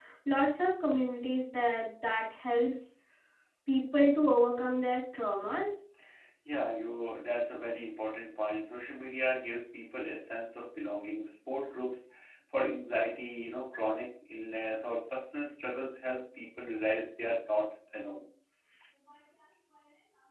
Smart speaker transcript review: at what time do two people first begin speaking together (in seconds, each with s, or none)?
none